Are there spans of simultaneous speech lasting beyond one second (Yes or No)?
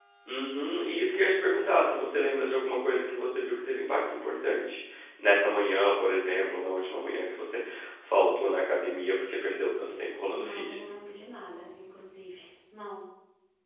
No